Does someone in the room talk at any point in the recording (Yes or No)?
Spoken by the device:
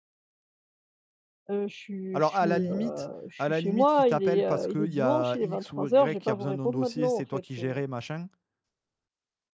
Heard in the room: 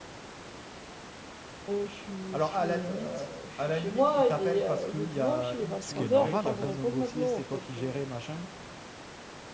Yes